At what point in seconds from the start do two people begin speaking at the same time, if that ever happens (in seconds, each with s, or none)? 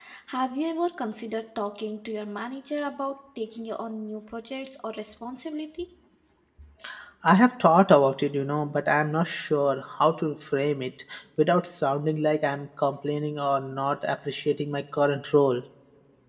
none